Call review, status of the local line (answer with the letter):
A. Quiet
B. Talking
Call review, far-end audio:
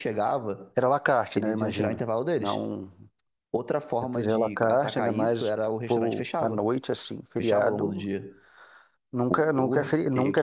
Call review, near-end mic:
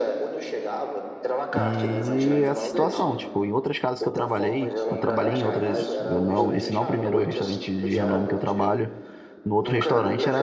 B